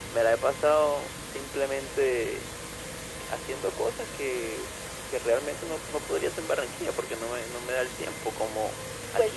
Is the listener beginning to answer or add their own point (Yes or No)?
No